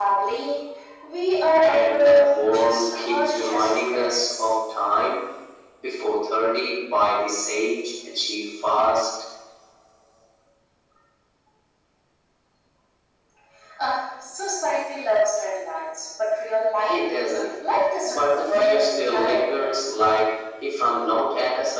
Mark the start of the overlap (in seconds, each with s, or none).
1.6 s